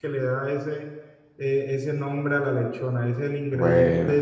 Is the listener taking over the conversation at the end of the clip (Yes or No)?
No